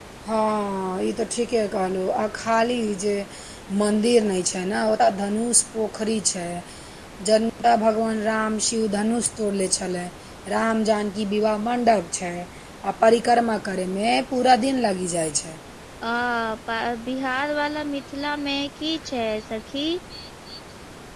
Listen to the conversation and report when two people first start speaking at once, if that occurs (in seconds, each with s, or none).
none